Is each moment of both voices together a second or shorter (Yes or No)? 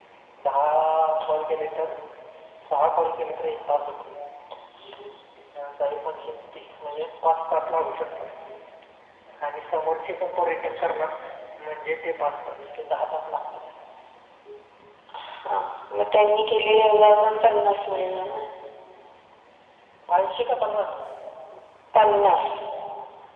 Yes